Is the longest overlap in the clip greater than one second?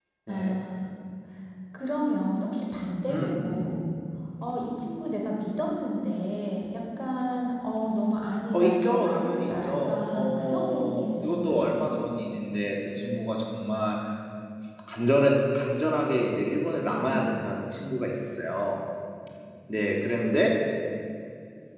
Yes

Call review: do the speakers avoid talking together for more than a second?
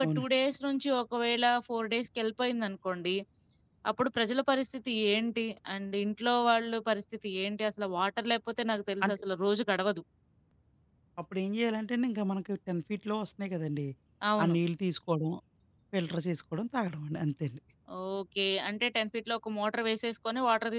Yes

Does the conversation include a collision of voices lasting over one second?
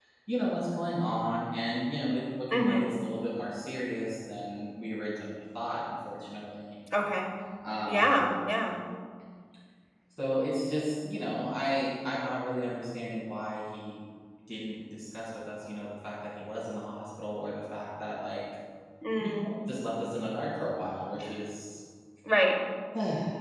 No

